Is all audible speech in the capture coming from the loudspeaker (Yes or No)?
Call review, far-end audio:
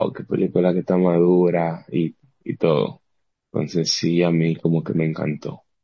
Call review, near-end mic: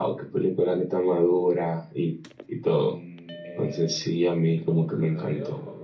No